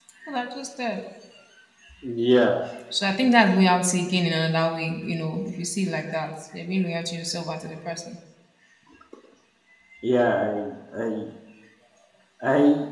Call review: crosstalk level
none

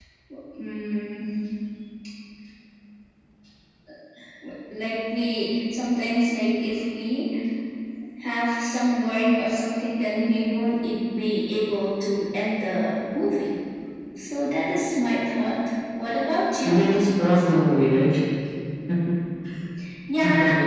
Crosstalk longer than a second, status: none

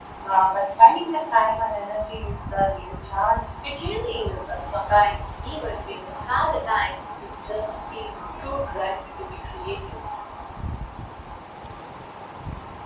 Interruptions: none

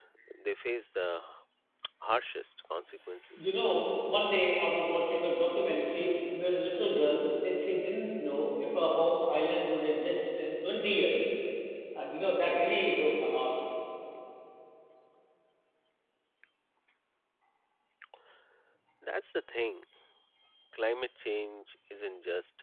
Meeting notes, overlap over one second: none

